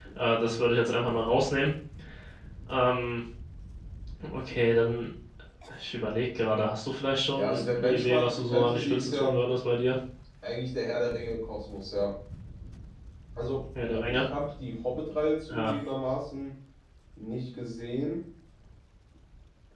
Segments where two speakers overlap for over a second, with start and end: 7.3-9.4

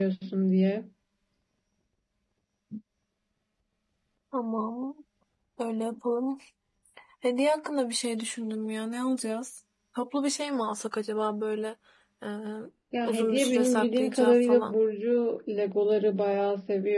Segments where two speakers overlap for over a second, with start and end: 13.0-14.7

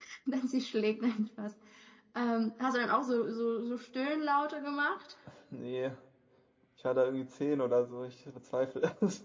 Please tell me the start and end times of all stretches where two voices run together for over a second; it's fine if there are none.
none

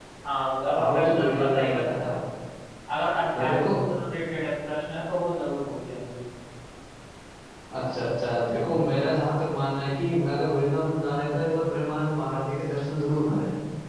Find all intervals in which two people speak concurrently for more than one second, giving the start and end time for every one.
0.7-2.1

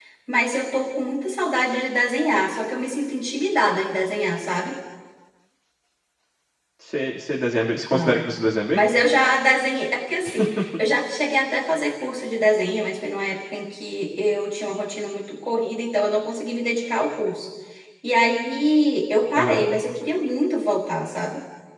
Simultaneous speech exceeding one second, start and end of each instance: none

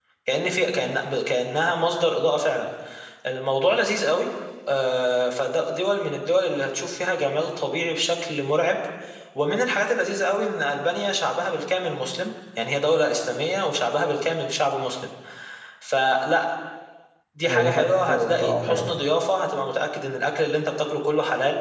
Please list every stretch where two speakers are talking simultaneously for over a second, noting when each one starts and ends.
17.5-19.0

